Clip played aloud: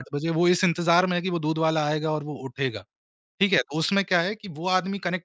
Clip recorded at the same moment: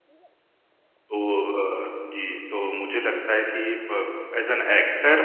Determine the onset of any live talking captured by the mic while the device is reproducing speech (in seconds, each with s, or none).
0.9 s